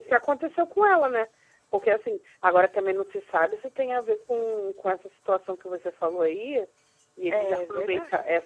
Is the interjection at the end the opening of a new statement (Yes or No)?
No